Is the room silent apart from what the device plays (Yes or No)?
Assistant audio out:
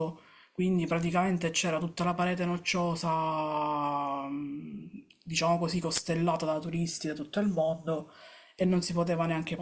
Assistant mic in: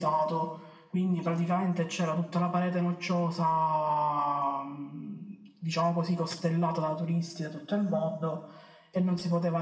Yes